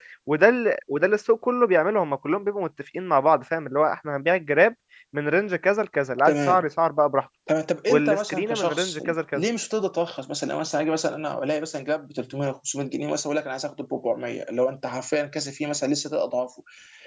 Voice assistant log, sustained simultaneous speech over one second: present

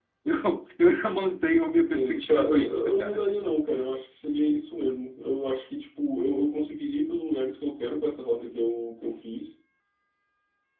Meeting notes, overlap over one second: present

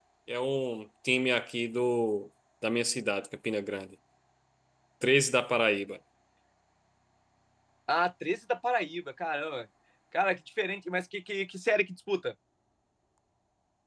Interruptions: none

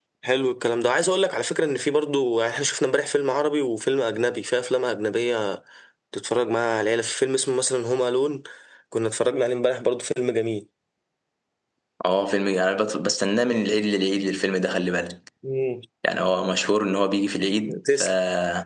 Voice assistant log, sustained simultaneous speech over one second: none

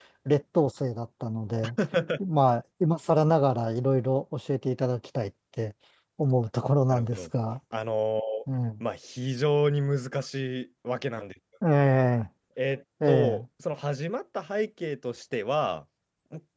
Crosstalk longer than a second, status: none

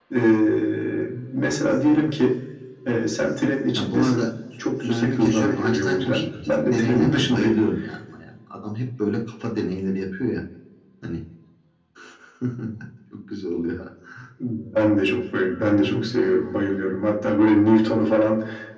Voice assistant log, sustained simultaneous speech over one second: present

